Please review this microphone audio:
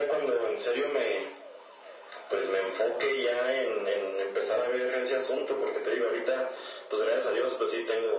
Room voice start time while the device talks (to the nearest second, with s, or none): none